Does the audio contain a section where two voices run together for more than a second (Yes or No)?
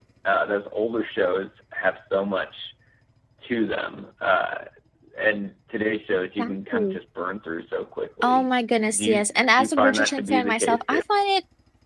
Yes